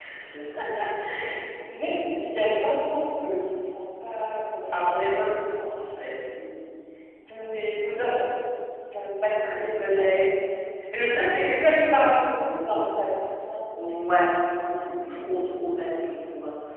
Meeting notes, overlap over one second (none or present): none